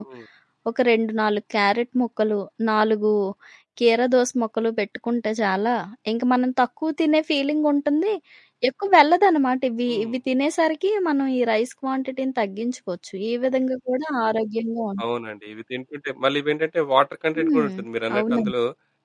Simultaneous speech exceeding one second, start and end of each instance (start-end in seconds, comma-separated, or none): none